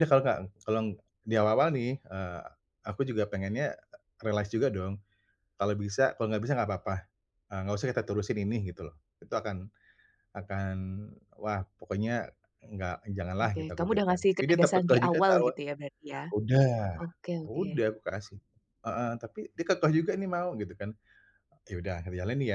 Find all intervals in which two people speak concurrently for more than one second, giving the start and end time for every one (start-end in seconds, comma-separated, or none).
13.4-15.5